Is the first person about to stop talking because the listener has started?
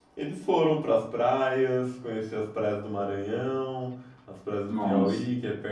No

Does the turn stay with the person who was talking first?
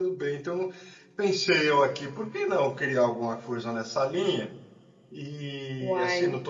Yes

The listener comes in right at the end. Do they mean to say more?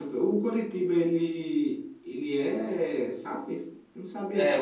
Yes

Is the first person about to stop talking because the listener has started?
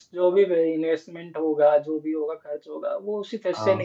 No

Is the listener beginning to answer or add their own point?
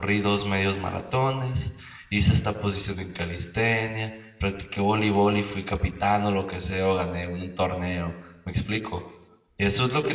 No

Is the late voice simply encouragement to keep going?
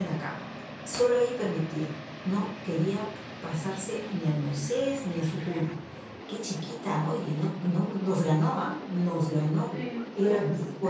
No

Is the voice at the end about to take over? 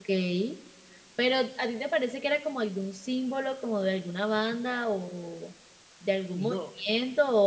No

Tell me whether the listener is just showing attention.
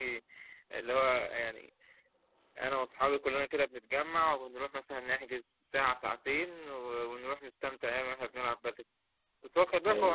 Yes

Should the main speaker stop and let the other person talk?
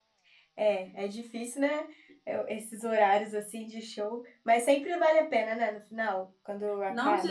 Yes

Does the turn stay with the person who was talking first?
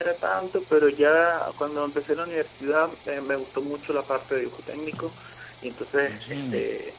Yes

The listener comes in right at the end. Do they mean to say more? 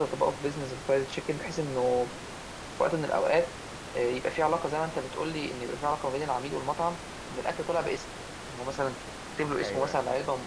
No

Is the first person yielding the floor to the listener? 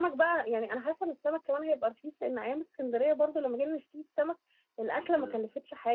No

